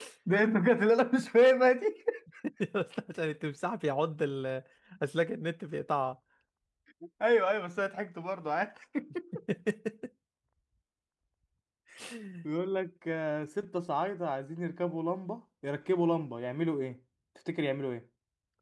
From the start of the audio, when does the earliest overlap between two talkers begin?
none

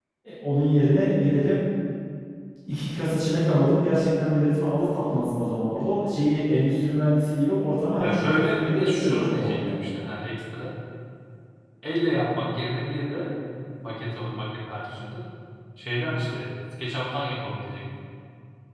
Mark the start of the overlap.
8 s

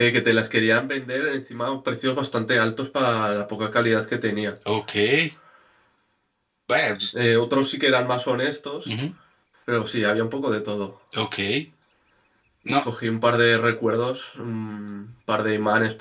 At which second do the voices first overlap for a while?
none

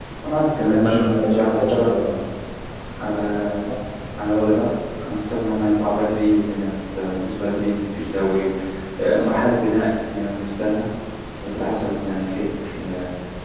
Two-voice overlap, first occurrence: 1 s

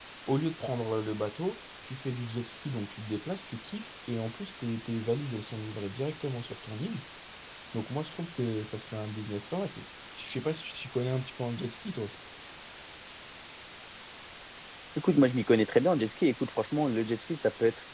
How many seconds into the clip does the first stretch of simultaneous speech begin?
none

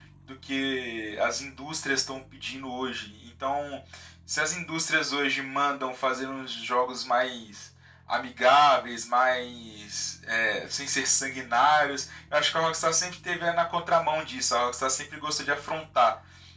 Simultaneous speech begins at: none

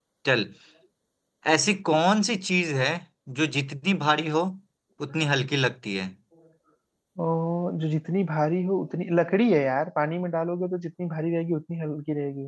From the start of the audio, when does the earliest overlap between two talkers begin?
none

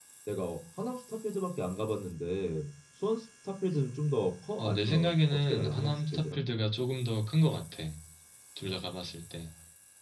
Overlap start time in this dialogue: 5 s

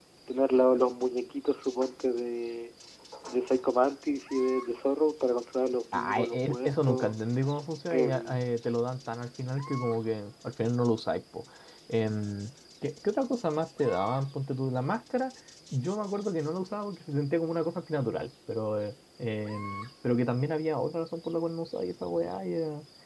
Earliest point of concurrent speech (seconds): 6 s

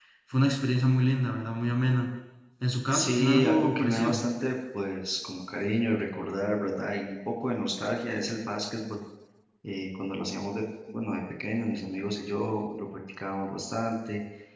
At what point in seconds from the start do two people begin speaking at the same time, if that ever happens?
3 s

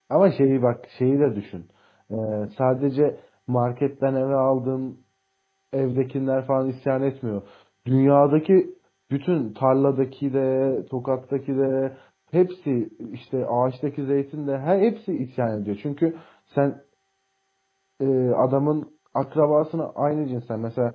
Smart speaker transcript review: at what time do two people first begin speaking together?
none

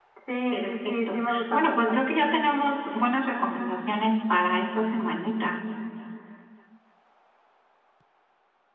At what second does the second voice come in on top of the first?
1 s

